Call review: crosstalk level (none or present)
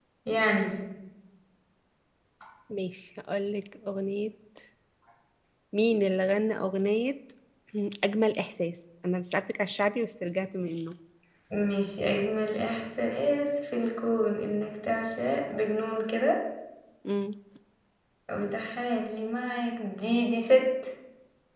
none